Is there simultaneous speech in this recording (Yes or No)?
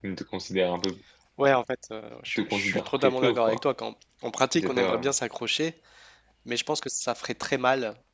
Yes